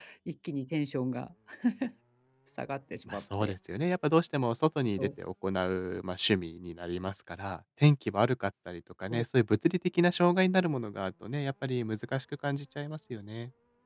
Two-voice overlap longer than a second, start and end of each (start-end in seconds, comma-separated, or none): none